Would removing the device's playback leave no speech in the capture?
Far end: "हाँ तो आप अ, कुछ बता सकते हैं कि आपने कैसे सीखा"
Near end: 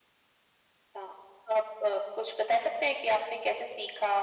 Yes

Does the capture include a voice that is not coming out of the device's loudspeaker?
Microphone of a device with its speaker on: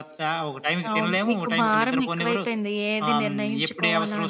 Yes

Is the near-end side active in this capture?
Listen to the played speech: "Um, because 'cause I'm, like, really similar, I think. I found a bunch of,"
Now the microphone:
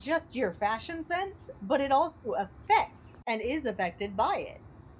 Yes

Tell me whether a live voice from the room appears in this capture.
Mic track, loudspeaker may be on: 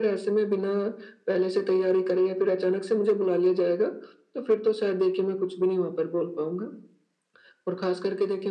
No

